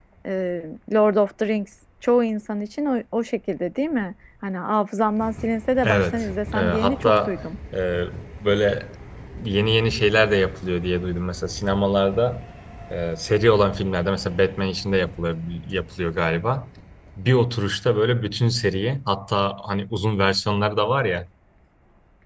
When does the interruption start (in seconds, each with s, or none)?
5.8 s